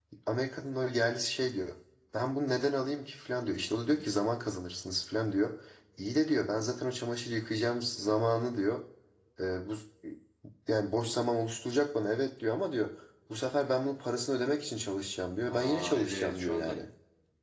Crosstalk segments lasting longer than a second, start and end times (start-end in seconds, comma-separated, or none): 15.5-16.7